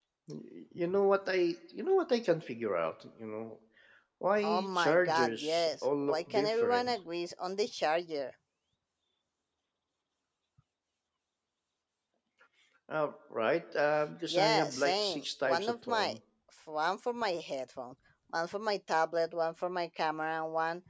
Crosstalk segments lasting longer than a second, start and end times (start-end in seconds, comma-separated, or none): 4.4-6.9, 14.3-16.2